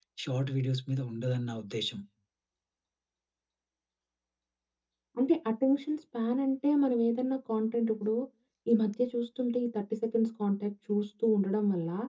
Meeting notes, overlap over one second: none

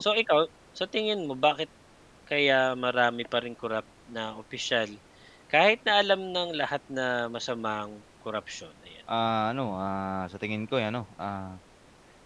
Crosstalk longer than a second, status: none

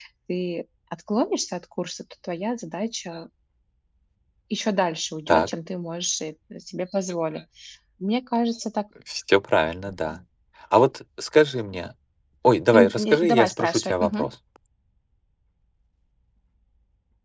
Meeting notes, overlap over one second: present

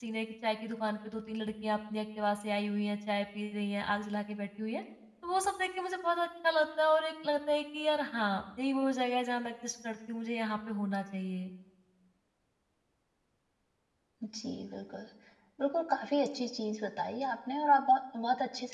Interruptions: none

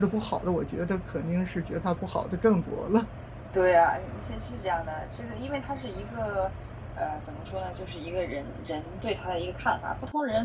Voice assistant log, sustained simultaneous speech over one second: none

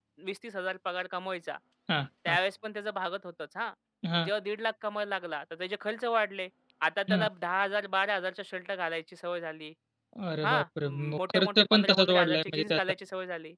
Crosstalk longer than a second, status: present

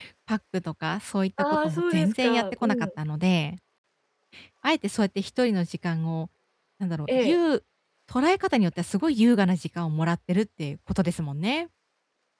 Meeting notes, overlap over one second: present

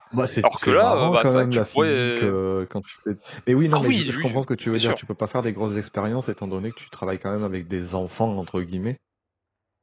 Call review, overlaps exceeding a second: present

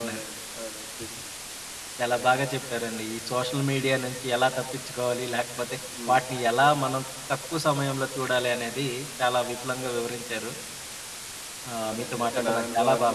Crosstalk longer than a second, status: present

